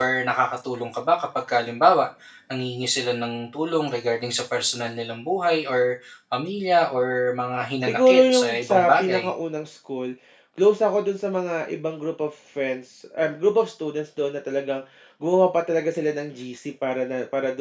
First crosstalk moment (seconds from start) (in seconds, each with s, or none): 7.8 s